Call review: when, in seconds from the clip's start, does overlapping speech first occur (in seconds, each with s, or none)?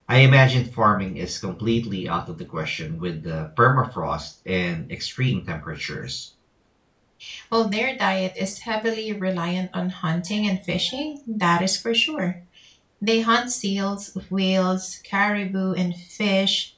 none